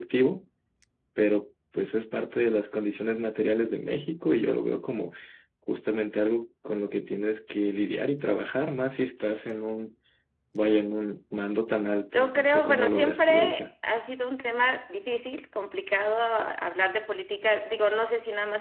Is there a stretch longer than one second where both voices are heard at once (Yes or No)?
Yes